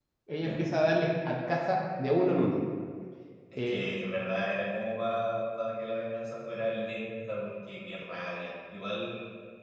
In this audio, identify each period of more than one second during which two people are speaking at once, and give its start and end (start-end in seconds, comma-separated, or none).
none